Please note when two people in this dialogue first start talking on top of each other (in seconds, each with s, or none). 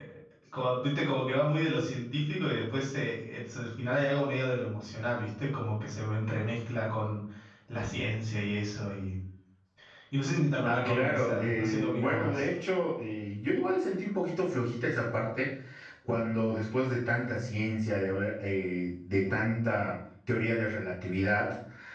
10.7 s